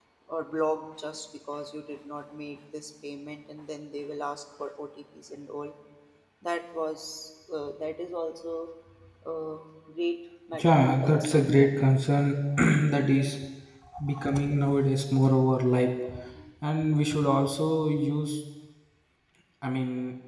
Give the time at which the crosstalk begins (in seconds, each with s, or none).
10.5 s